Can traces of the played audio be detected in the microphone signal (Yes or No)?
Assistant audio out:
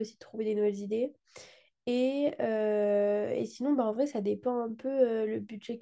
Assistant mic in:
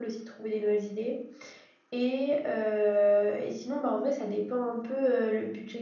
Yes